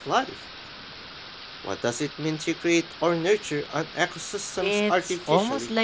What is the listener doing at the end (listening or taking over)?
taking over